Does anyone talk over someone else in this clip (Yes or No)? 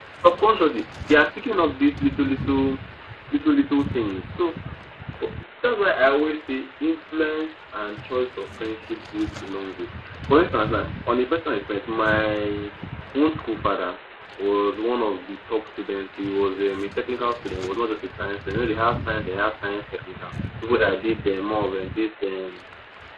No